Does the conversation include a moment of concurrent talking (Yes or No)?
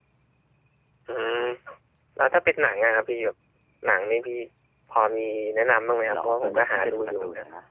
Yes